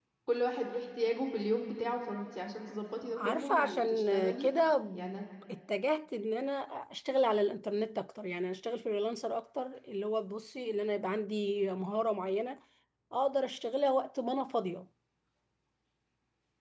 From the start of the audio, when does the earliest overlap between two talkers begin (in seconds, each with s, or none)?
3.2 s